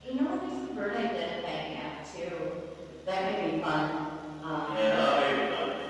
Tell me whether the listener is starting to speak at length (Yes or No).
Yes